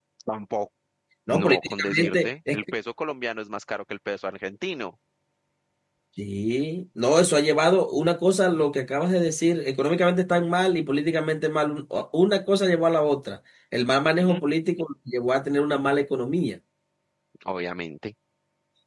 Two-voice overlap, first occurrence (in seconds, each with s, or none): 1.3 s